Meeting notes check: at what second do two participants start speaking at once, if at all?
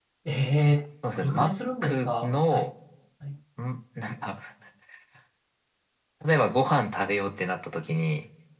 1.2 s

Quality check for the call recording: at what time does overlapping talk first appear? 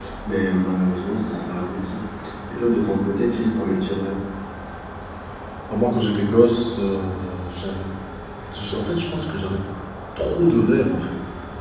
none

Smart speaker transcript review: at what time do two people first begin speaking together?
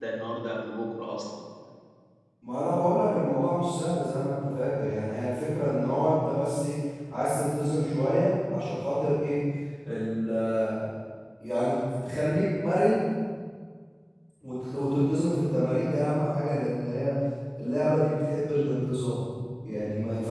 none

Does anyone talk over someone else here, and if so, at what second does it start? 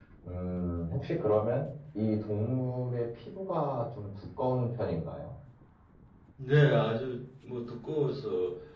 none

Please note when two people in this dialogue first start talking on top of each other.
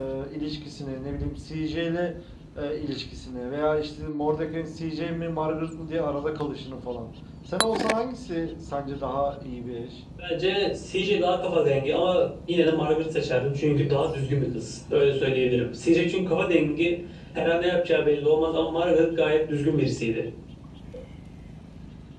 none

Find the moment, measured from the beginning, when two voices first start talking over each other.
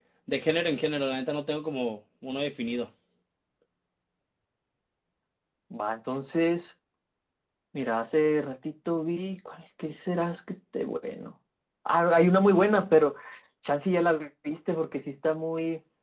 none

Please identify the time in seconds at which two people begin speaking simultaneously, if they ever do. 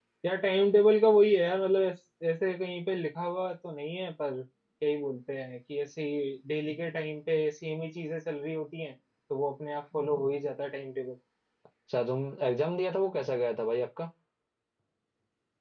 none

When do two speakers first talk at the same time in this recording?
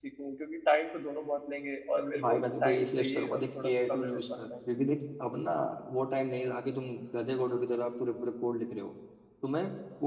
2.1 s

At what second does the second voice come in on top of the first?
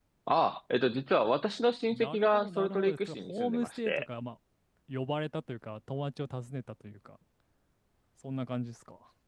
1.9 s

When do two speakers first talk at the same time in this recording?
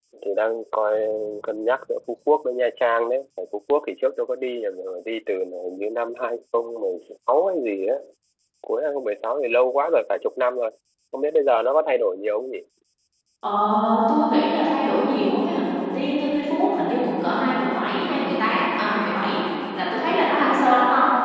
none

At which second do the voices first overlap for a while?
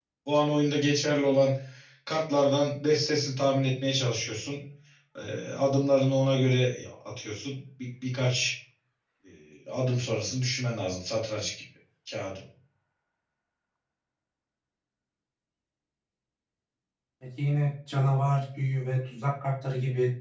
none

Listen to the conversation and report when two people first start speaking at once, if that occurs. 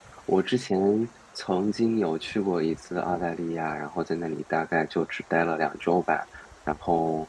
none

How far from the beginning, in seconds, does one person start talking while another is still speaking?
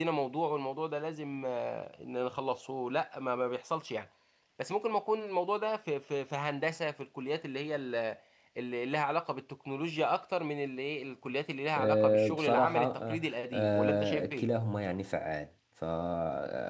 11.8 s

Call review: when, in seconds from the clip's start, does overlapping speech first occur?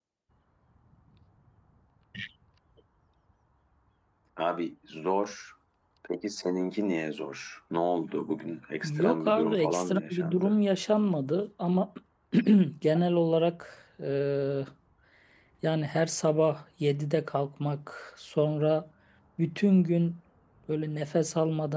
8.8 s

